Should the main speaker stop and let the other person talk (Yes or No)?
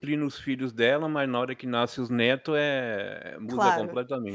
Yes